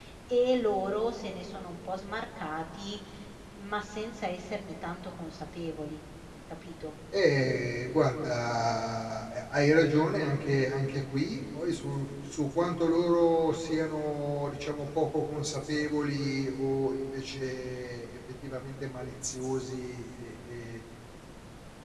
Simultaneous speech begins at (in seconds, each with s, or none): none